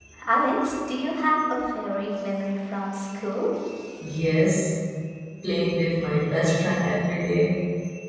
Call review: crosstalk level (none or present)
none